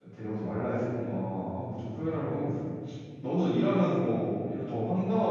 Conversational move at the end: listening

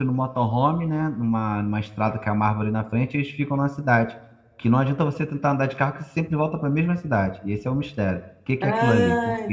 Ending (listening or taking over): taking over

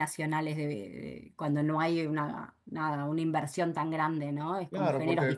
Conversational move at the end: taking over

